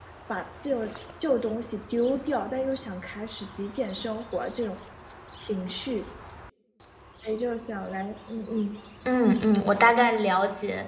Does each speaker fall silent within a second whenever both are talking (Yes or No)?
Yes